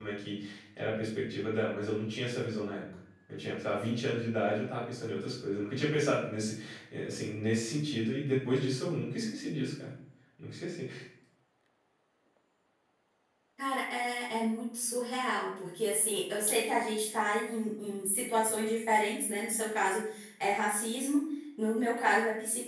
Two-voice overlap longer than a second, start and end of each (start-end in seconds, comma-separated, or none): none